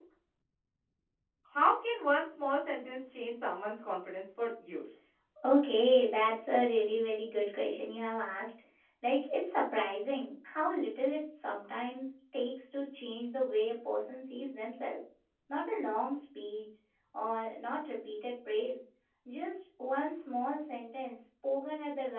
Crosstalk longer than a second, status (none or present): none